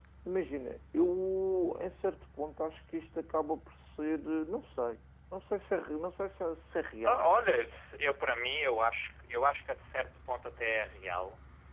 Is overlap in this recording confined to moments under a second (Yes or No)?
Yes